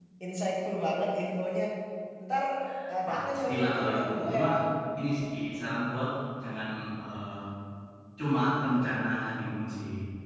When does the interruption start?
3.1 s

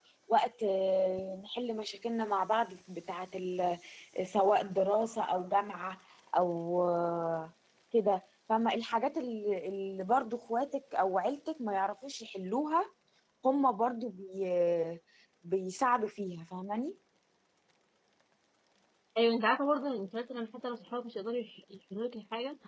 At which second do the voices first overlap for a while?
none

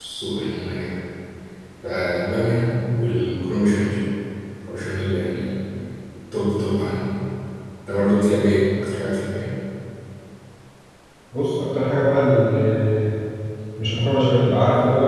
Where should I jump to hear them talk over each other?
none

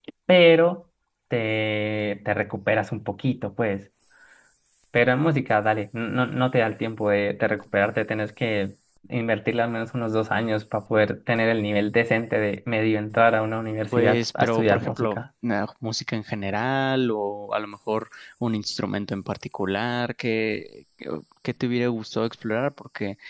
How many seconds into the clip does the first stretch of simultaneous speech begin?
13.9 s

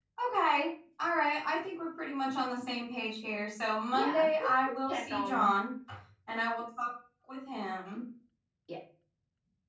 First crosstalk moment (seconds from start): 3.9 s

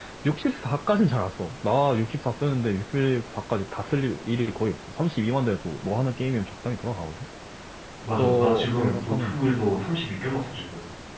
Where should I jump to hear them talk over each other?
8.2 s

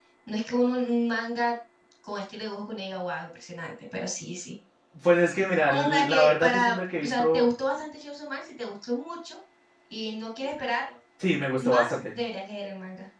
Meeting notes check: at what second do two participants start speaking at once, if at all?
5.7 s

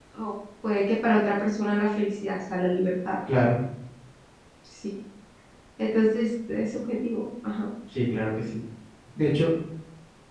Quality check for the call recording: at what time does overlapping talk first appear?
none

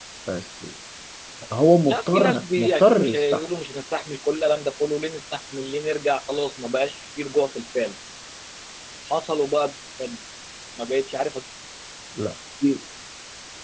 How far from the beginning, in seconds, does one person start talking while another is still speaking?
1.9 s

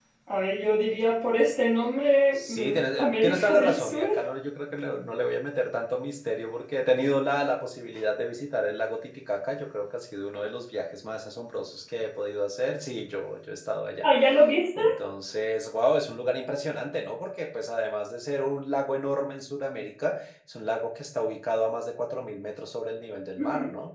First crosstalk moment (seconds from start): 2.4 s

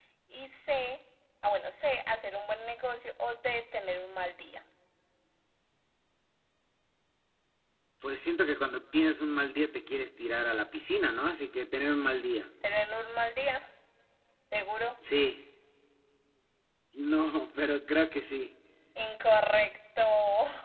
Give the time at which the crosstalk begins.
none

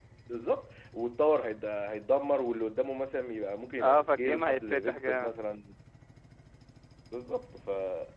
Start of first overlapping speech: 3.8 s

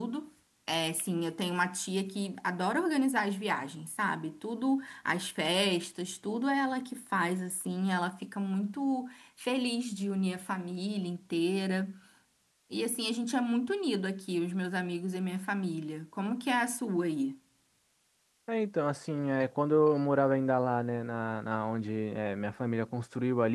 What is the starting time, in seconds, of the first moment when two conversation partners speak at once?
none

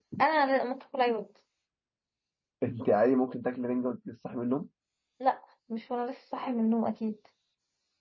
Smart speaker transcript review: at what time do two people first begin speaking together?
none

